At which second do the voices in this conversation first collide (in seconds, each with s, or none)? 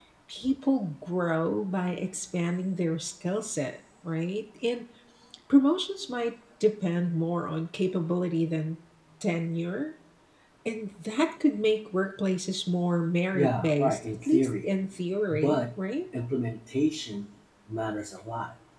13.3 s